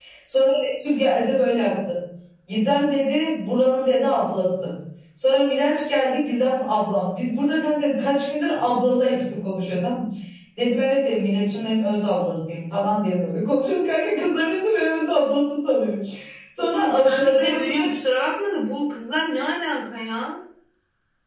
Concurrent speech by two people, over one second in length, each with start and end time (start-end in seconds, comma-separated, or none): 16.6-17.9